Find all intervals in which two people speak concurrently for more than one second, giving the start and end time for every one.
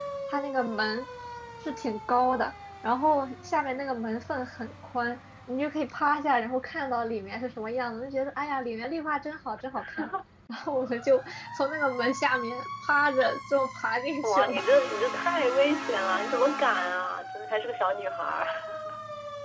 none

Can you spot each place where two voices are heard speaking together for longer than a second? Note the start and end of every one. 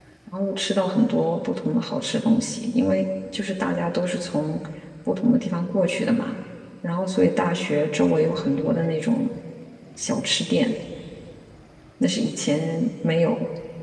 none

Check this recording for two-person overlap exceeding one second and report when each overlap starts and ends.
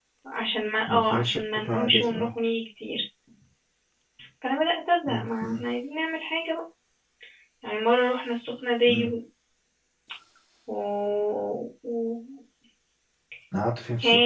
0.9-2.3

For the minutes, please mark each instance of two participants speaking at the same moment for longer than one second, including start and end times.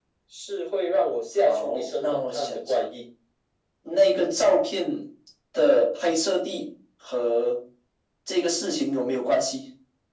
1.4-2.8

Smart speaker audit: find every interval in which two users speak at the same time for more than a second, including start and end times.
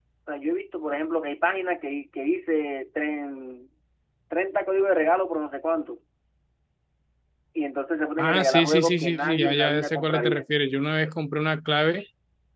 8.2-10.4

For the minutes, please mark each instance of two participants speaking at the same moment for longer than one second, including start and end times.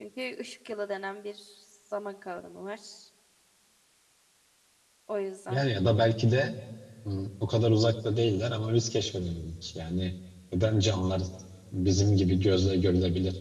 none

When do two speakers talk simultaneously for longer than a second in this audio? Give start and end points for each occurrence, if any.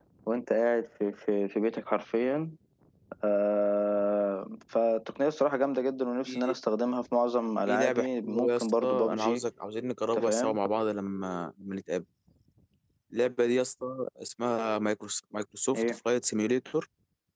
7.7-9.4

